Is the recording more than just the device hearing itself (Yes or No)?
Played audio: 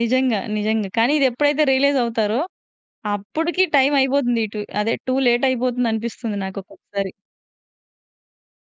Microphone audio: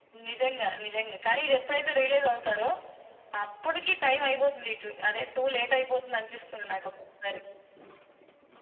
No